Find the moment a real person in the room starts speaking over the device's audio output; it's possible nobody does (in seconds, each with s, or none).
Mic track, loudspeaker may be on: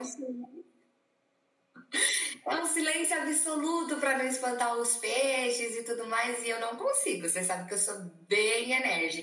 none